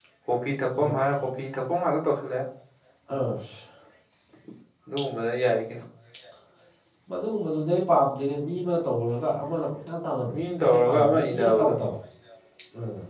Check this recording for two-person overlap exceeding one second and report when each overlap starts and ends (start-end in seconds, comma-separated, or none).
10.3-11.7